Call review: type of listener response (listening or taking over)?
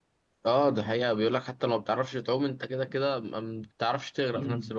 taking over